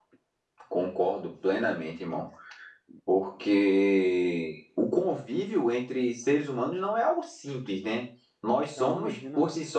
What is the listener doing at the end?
listening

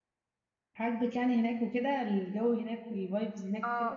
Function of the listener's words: taking over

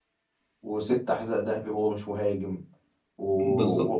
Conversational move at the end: listening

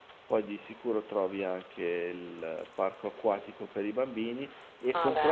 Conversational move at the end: listening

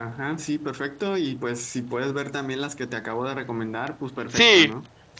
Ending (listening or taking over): taking over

